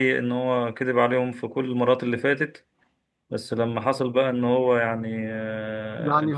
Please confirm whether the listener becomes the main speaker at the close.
No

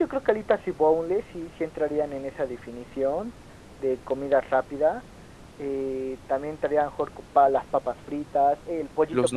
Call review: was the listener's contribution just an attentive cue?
Yes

